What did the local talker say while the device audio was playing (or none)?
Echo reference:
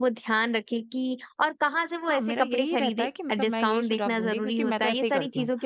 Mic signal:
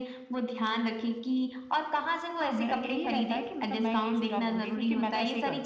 none